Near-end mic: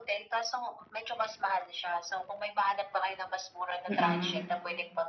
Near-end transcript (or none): Mhm.